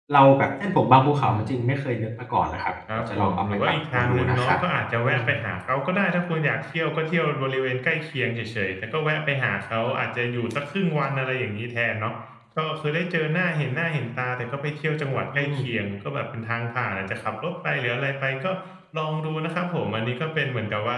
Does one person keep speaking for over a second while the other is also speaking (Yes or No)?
Yes